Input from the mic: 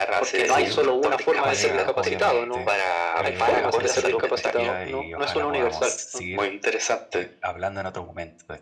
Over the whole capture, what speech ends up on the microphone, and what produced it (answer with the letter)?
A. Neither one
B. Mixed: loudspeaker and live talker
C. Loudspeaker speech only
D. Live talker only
B